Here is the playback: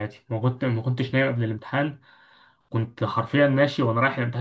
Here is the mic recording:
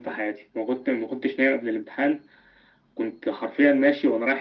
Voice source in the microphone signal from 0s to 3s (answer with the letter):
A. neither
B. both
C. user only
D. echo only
D